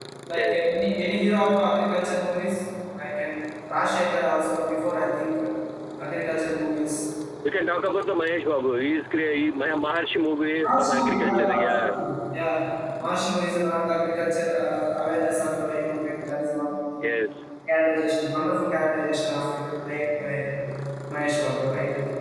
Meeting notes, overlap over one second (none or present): present